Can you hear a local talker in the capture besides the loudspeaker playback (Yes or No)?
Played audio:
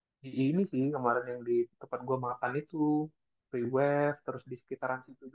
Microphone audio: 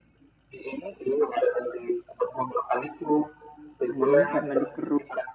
Yes